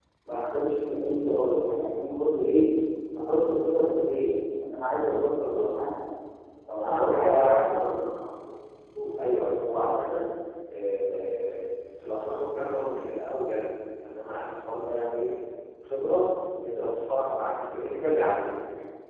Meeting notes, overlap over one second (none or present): present